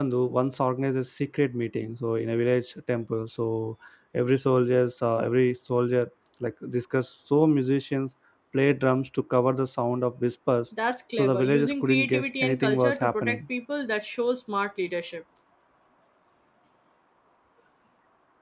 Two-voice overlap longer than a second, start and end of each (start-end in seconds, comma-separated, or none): 11.1-13.4